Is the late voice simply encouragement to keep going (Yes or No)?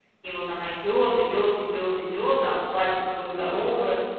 No